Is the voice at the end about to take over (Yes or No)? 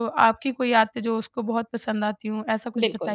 Yes